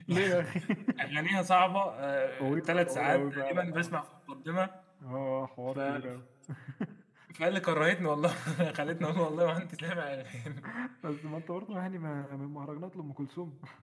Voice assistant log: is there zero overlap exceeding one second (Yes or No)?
No